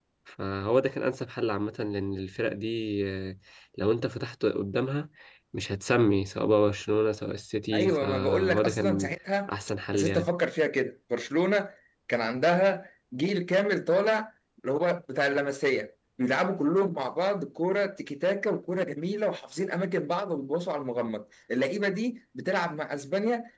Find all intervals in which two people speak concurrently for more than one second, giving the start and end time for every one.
7.7-9.1

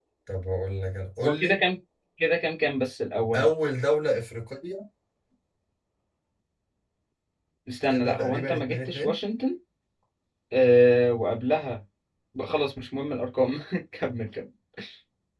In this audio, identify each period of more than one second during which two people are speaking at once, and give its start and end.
7.9-9.1

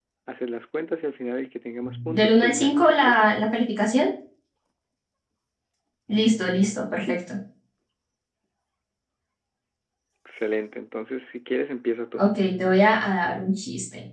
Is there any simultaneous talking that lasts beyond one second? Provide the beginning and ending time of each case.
1.8-3.3

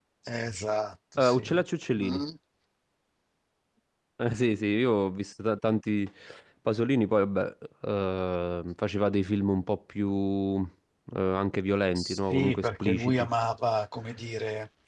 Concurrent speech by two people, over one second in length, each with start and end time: 12.0-13.3

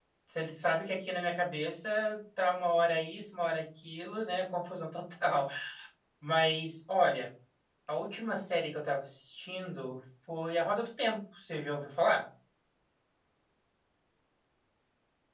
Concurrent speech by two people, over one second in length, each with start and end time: none

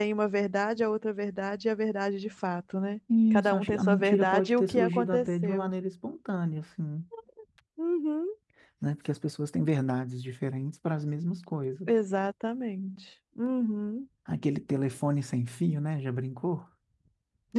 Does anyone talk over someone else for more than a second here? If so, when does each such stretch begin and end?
3.3-5.7

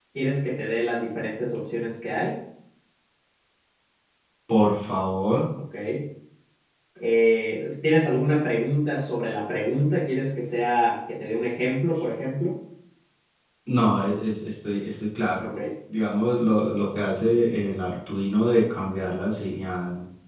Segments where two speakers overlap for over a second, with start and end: none

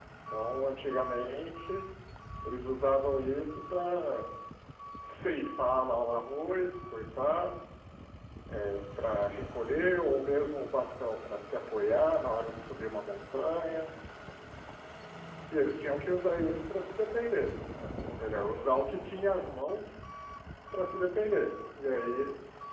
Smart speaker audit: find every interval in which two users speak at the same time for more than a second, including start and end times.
none

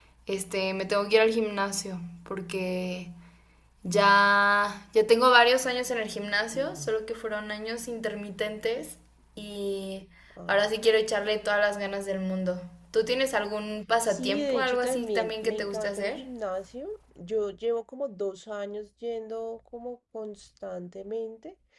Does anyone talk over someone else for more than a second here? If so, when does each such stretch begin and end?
14.1-16.2

